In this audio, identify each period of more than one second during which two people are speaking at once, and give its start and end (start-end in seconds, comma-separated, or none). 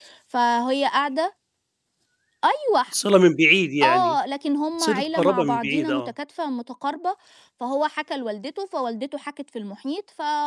4.8-6.1